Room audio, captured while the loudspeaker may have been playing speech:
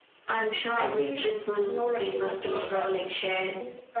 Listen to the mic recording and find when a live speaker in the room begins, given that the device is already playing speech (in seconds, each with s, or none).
0.7 s